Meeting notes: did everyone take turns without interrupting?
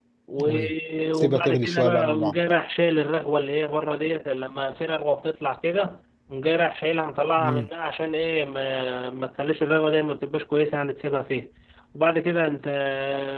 No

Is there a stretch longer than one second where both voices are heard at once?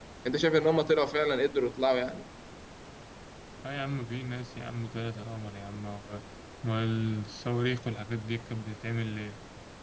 No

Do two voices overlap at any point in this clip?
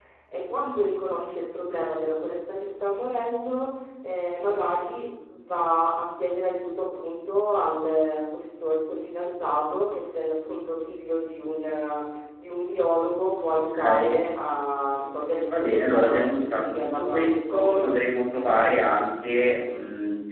Yes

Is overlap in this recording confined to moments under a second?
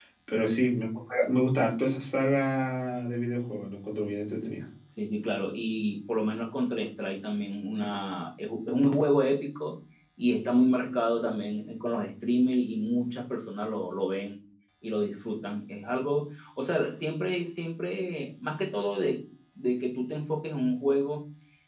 Yes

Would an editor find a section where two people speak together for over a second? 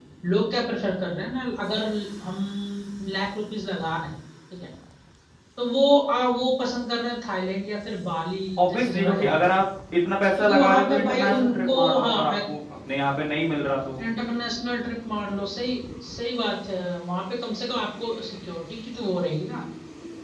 Yes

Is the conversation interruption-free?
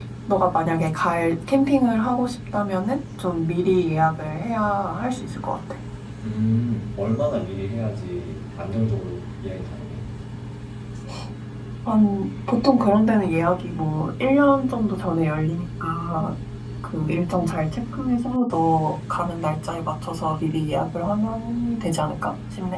Yes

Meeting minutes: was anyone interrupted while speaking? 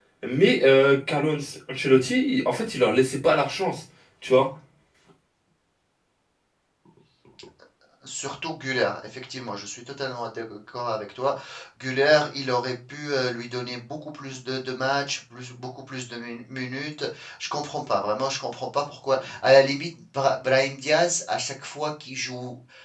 No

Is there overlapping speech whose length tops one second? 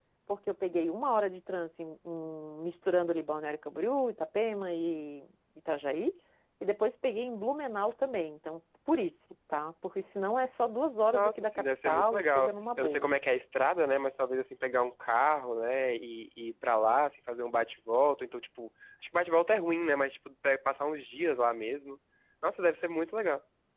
Yes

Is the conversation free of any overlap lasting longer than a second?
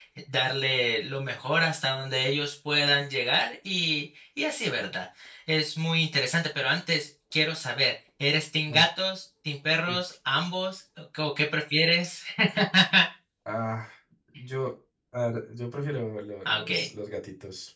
Yes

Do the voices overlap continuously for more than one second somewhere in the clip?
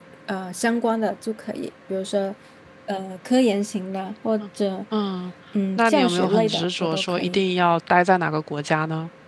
Yes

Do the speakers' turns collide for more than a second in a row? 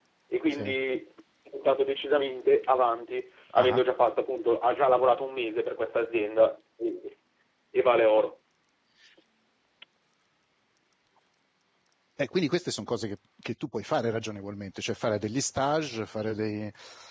No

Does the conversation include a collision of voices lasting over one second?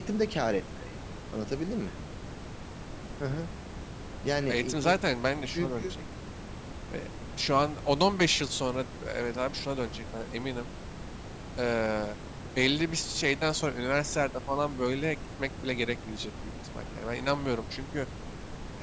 No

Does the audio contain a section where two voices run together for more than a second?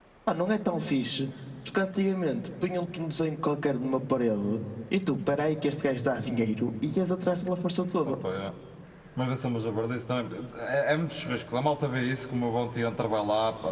No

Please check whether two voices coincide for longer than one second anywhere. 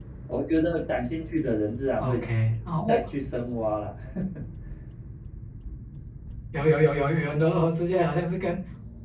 No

